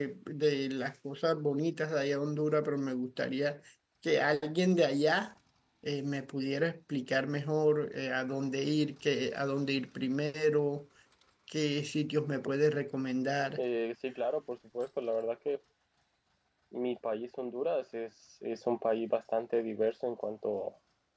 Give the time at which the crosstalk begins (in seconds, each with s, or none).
none